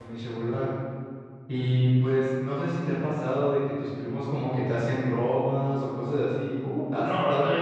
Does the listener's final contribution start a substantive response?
Yes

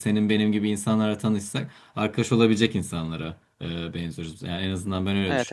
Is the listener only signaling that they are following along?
Yes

